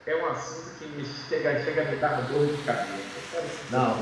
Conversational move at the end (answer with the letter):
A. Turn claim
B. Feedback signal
A